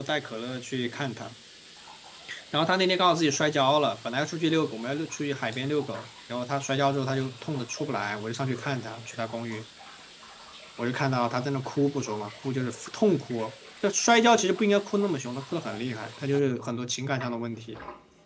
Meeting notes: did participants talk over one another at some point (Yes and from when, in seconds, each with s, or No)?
No